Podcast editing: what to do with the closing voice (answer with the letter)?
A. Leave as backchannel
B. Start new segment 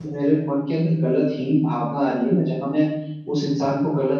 A